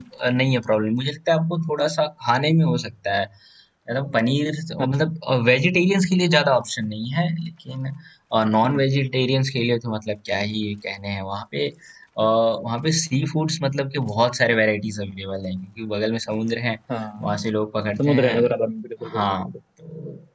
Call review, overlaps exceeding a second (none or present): none